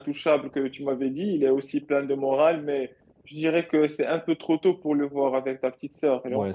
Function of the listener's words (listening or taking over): taking over